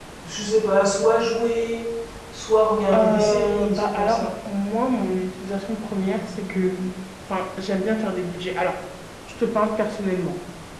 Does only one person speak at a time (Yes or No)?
No